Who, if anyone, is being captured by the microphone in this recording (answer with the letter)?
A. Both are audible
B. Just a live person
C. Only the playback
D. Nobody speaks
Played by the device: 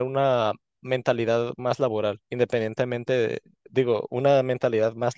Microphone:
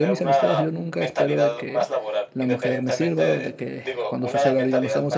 A